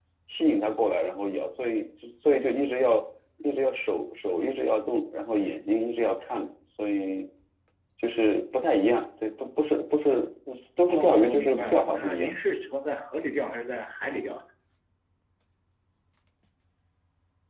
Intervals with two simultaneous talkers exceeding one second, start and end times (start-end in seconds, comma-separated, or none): 10.9-12.3